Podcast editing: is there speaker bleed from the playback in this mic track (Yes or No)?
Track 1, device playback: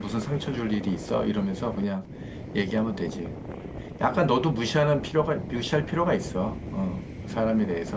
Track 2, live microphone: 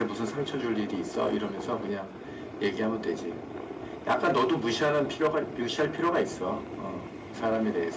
Yes